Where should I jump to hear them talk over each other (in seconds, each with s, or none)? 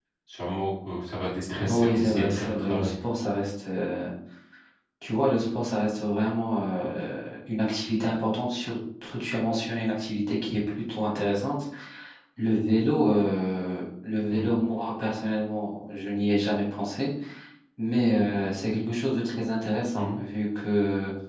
1.7 s